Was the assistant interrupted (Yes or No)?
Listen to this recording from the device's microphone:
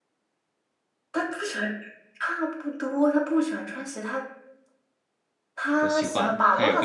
Yes